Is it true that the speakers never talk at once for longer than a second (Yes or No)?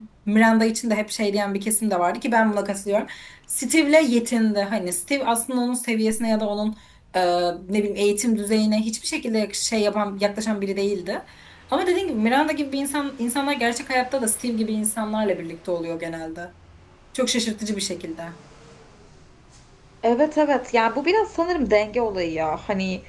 Yes